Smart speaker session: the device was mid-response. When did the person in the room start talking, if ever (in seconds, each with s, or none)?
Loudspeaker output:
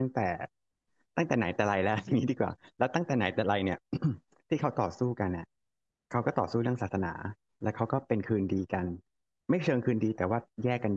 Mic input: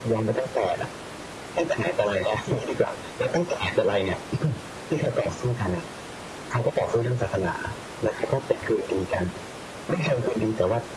none